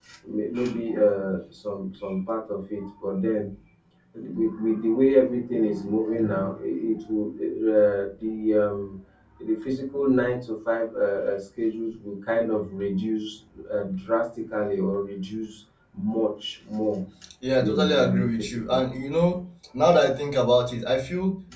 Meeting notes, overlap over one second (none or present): present